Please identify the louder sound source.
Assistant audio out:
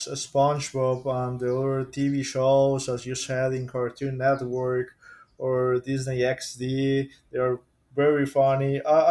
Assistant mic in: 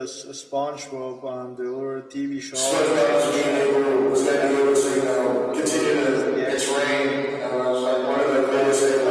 user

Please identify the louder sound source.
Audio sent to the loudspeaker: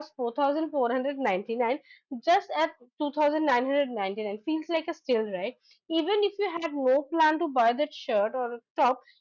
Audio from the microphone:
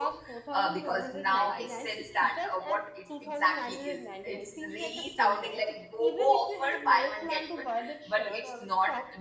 user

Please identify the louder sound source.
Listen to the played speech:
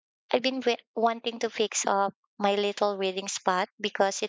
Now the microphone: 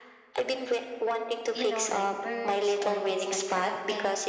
echo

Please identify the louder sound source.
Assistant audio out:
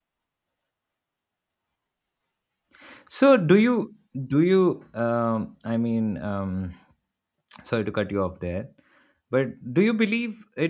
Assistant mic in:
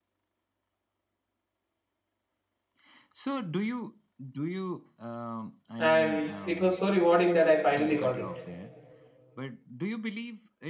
user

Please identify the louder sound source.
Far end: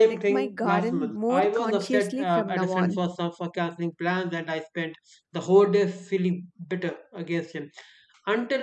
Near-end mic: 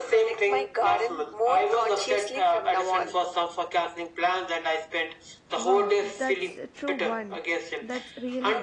echo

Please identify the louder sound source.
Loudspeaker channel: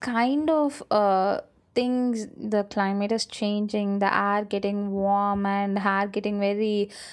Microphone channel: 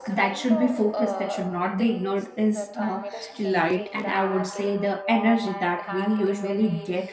user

